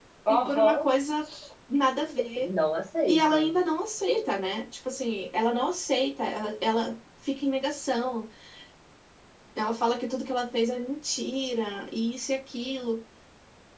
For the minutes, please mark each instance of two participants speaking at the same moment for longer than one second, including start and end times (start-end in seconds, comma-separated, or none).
none